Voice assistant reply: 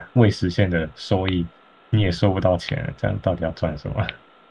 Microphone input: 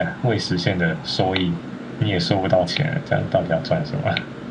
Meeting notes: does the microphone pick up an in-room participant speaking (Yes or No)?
No